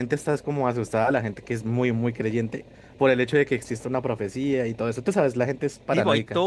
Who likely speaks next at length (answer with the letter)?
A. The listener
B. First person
A